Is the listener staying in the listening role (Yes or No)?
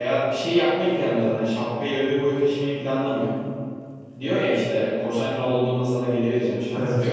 No